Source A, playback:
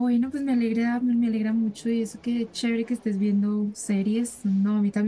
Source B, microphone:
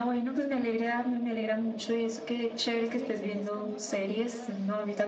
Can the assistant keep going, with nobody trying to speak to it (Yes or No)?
No